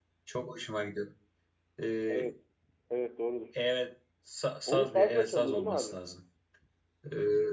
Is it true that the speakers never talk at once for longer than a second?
No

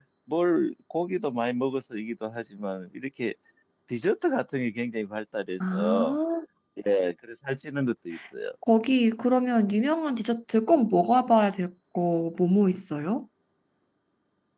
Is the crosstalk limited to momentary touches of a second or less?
Yes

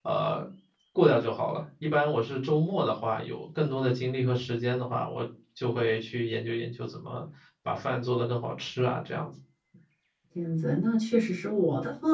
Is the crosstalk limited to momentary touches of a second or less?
Yes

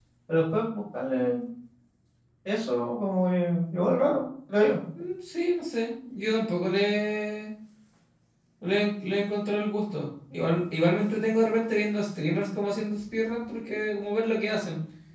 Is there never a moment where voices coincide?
Yes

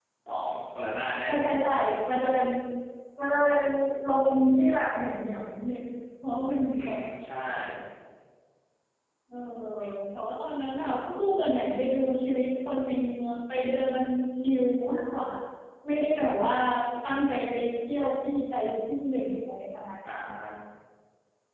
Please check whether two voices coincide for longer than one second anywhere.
No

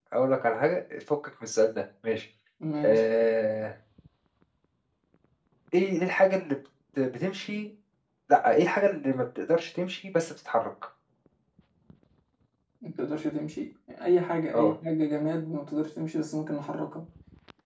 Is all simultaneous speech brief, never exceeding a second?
Yes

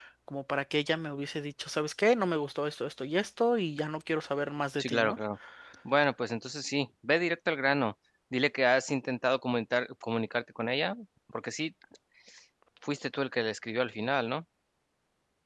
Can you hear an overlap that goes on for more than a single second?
No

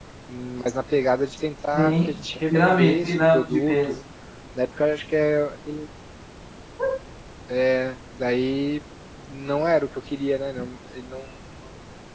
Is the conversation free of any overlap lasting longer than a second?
No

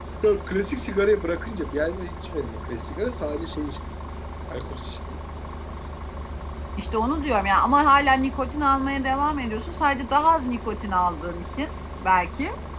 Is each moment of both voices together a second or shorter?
Yes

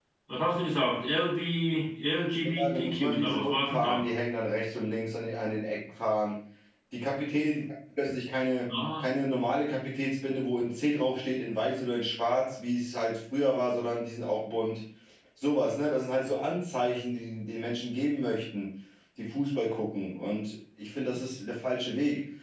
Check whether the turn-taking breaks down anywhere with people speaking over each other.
Yes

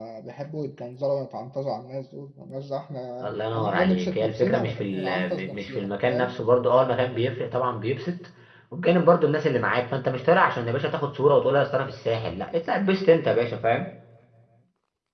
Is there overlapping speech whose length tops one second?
Yes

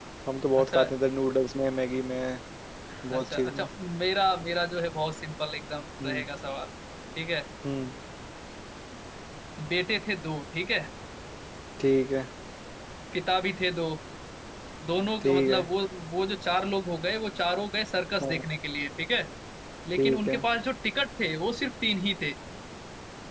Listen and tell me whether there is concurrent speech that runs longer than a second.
No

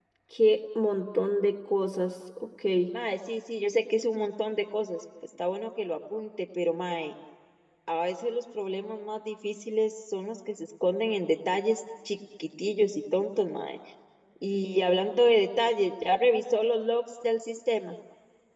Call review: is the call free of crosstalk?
Yes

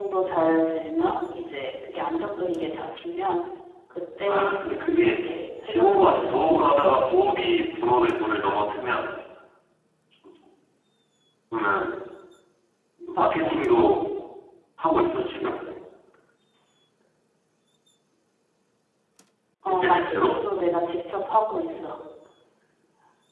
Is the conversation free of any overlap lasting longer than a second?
No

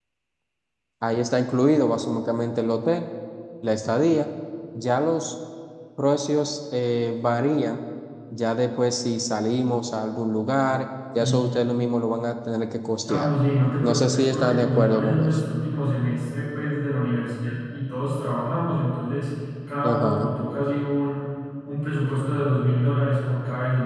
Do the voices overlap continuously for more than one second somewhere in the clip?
Yes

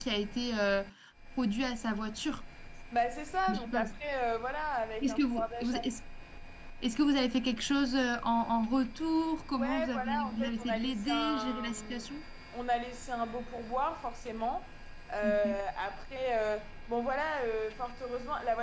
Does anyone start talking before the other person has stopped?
Yes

